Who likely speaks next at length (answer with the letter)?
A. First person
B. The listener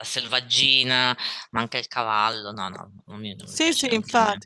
B